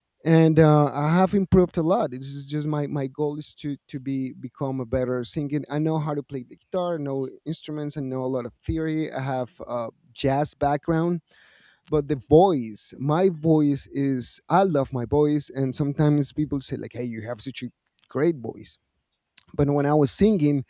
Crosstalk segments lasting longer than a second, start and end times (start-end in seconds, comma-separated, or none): none